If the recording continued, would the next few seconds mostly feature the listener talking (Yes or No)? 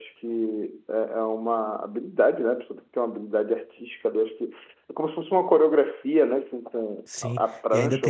Yes